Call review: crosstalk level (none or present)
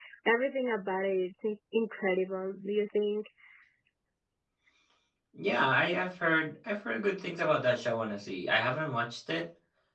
none